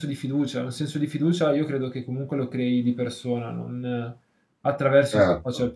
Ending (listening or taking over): taking over